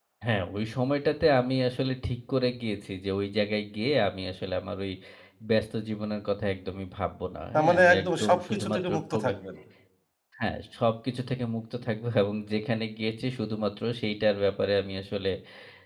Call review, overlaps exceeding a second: present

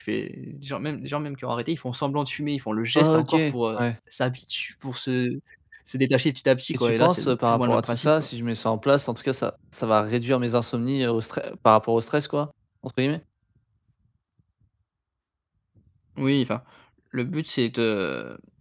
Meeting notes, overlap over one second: present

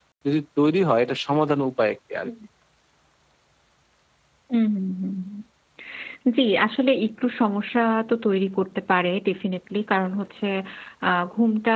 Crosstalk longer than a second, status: none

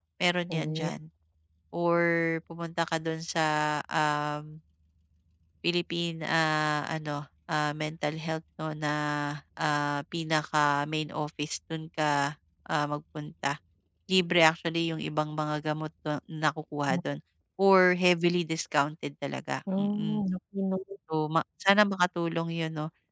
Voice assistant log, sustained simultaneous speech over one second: none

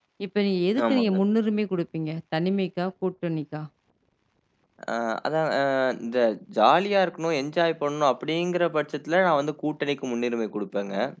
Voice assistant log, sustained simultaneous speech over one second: none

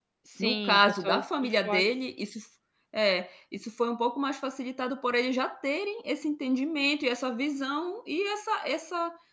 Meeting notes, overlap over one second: present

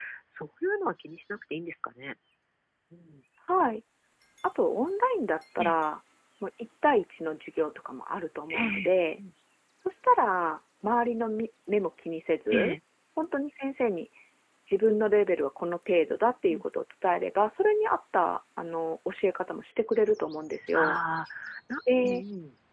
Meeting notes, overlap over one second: none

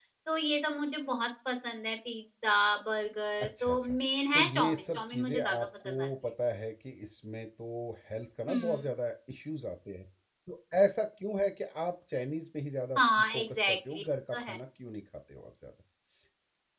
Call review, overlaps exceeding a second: present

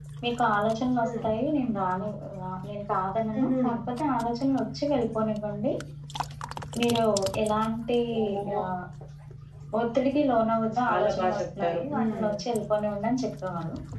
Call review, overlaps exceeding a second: present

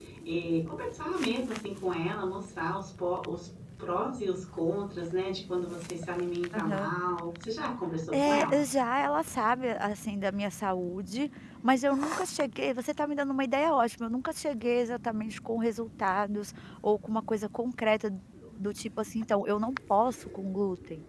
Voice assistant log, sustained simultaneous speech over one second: none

